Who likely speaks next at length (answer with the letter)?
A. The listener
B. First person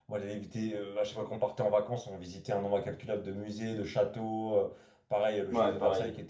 B